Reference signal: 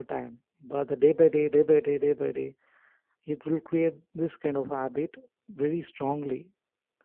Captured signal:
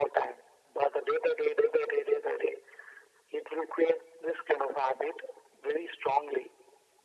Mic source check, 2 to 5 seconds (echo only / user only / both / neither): echo only